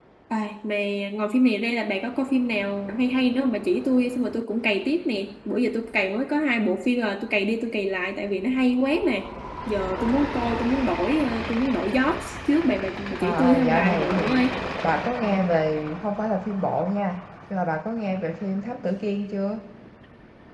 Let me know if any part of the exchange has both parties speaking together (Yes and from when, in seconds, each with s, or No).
Yes, from 13.2 s